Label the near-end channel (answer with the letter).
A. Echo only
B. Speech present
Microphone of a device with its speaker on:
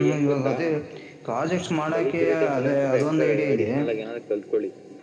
B